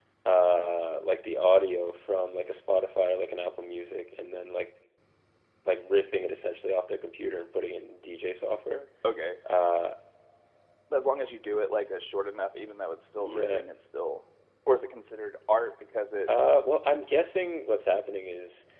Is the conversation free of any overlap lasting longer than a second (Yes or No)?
Yes